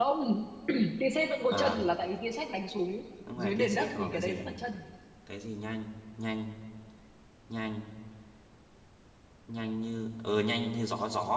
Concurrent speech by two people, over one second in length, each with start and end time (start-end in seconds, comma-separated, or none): 3.4-4.6